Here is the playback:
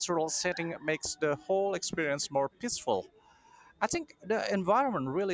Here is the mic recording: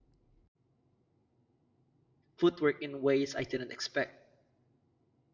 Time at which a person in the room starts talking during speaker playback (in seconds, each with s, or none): 2.4 s